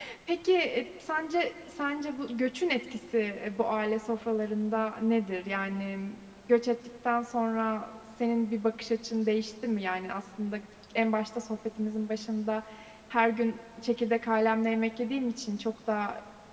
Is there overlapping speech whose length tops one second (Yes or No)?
No